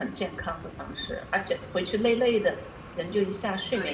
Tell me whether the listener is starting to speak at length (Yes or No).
Yes